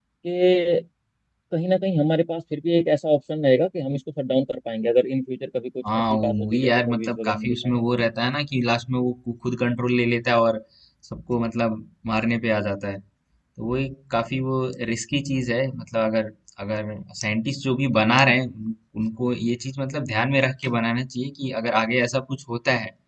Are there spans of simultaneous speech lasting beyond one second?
Yes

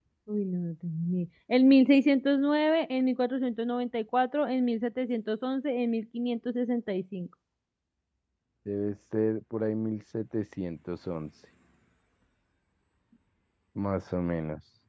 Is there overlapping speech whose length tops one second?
No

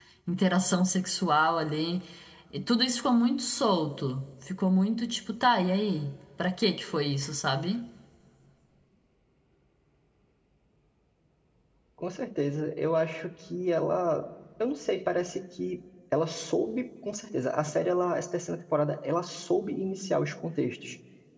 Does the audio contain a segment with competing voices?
No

